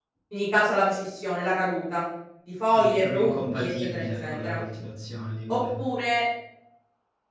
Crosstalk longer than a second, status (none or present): present